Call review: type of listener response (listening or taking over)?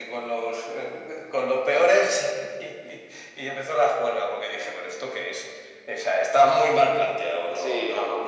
taking over